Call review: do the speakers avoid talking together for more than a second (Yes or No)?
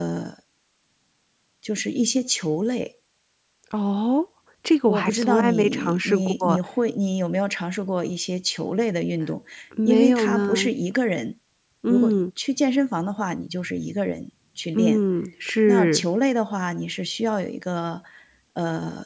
No